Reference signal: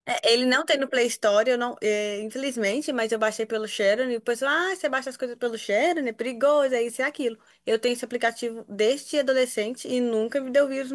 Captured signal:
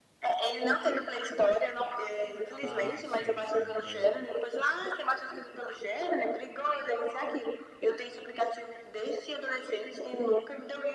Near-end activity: present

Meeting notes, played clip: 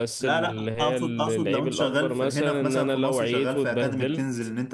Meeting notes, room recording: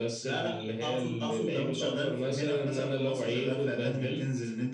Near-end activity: none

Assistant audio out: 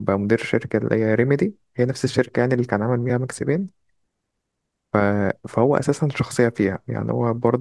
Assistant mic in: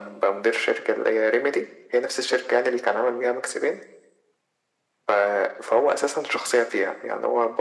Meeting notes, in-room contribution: none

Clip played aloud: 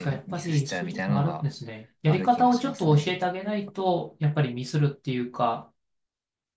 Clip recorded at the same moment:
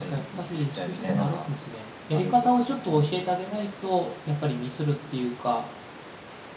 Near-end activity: present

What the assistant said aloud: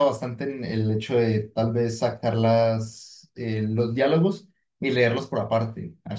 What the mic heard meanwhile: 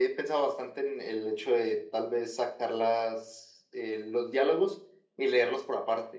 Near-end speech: none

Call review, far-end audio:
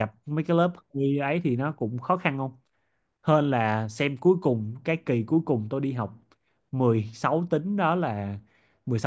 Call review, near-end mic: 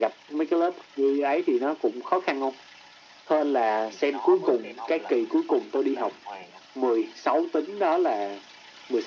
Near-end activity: present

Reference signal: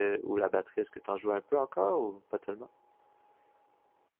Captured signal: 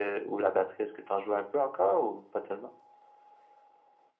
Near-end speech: none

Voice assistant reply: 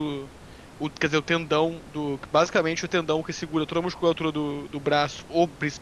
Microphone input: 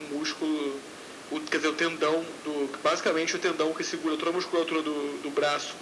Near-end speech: none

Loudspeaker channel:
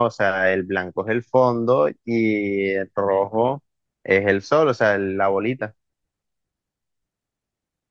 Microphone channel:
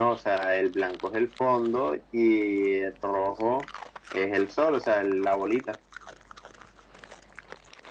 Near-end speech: none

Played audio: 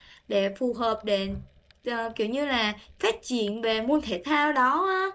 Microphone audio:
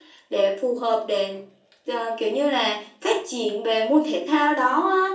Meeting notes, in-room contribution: none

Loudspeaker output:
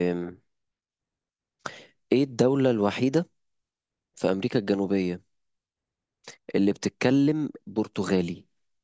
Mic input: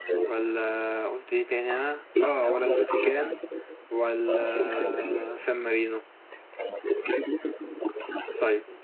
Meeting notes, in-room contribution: present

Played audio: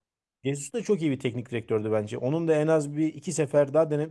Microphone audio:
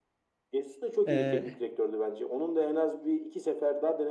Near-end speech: present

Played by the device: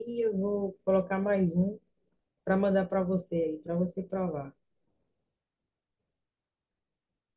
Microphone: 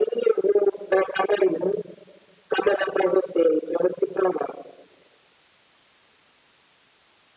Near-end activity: none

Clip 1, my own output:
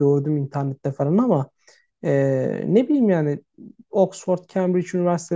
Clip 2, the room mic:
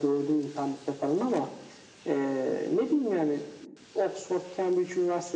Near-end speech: none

